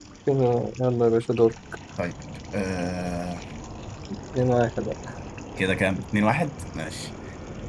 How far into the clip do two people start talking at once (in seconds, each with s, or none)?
none